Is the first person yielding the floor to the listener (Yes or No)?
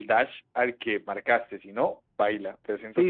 Yes